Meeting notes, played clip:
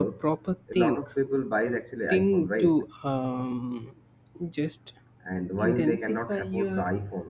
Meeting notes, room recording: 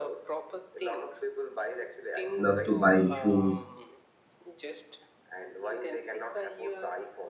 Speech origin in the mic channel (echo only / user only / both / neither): both